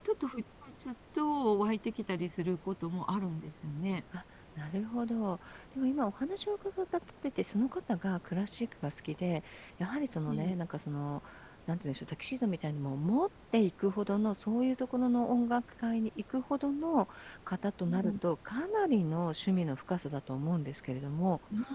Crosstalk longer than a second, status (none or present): none